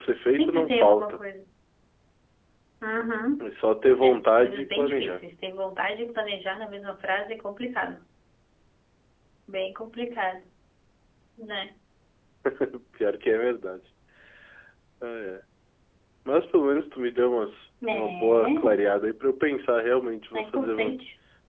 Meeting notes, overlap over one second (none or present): present